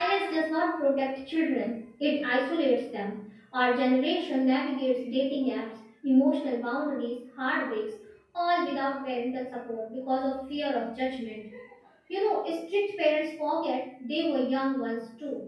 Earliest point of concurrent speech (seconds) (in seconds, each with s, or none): none